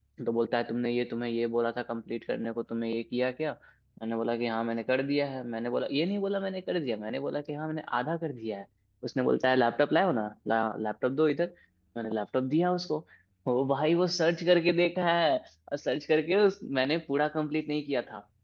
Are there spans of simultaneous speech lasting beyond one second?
No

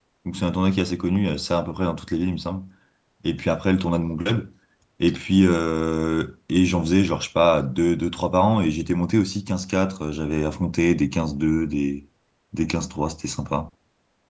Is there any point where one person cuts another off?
No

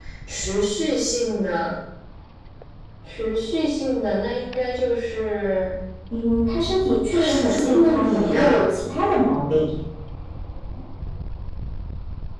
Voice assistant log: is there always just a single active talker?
No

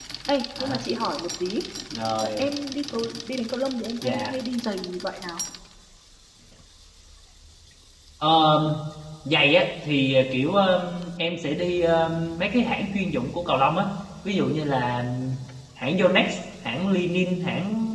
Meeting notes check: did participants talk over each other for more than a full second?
No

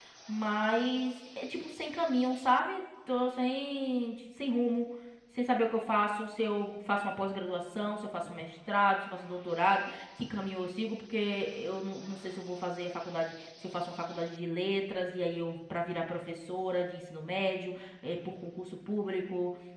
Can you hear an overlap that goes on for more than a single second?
No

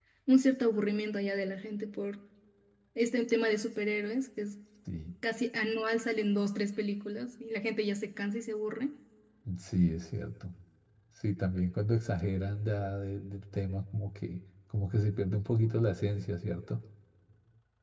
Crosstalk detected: No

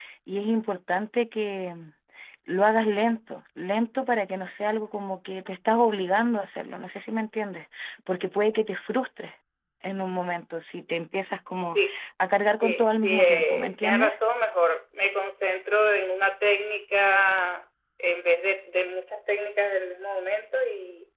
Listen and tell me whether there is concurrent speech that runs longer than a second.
Yes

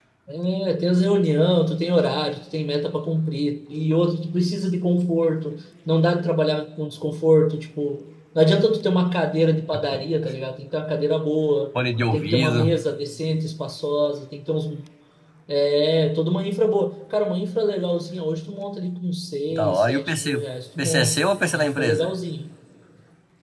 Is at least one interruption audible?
Yes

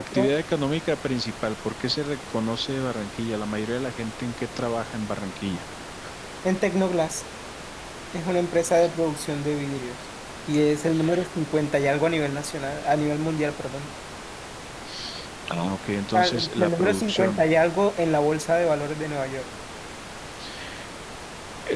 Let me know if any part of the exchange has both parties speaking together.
Yes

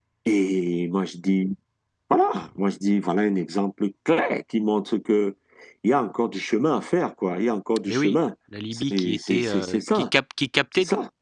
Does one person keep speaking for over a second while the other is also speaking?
Yes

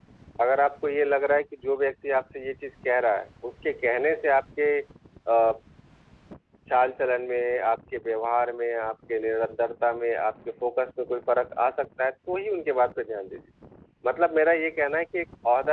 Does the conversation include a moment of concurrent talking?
No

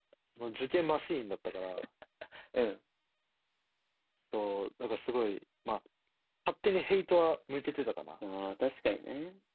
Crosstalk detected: No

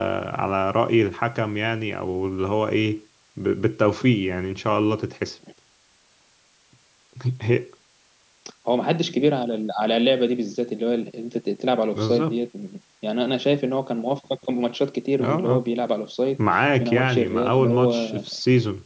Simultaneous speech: Yes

